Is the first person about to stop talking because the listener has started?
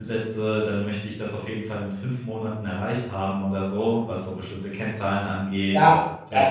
Yes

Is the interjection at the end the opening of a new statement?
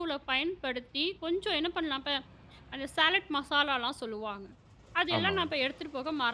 No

